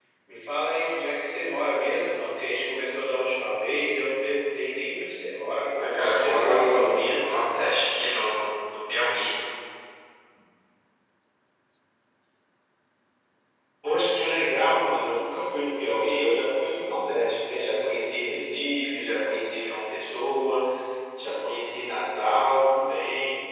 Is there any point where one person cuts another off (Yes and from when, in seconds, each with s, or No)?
Yes, from 5.7 s